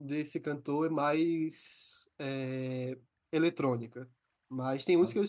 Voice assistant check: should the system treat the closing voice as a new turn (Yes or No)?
No